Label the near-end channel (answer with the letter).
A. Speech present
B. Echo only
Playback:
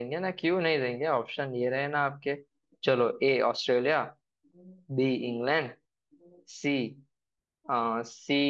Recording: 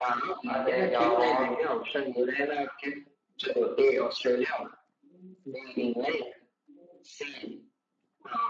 A